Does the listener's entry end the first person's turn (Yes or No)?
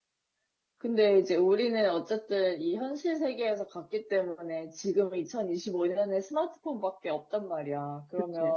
No